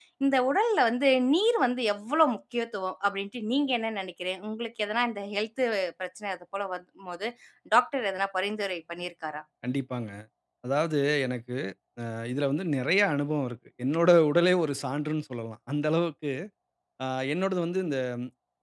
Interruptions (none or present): none